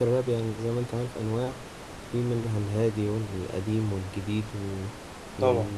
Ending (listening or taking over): listening